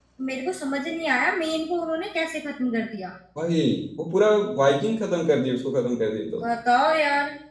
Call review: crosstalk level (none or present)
none